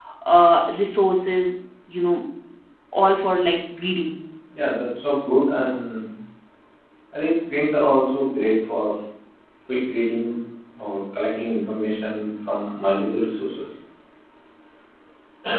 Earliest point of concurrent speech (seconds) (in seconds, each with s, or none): none